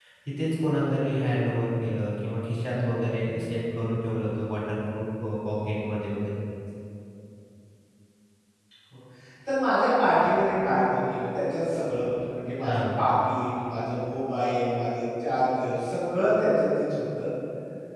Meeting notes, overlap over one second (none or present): none